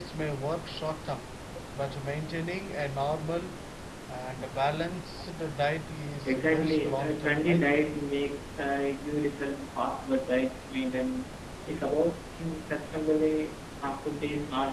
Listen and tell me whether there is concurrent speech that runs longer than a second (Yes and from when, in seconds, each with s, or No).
Yes, from 6.2 s